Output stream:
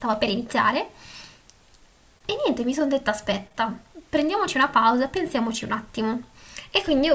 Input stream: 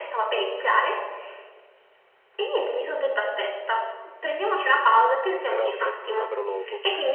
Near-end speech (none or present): present